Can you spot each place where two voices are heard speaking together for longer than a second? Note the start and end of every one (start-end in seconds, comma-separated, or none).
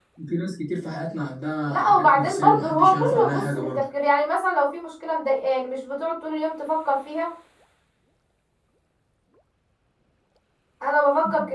1.7-3.8